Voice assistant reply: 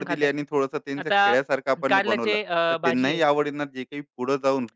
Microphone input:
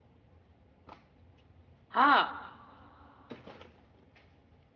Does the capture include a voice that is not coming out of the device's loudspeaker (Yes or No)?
Yes